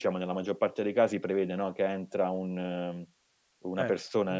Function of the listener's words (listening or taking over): listening